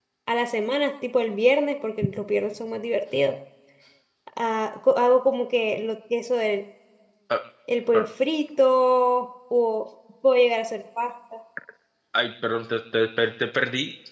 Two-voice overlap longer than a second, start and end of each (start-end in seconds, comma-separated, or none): none